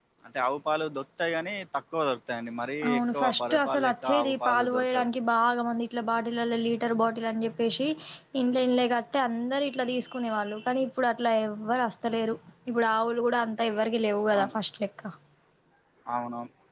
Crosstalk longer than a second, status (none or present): present